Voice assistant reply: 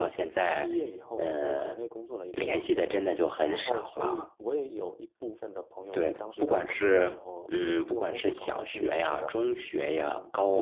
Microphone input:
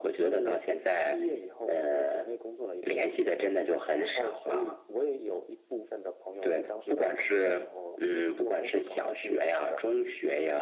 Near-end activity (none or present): none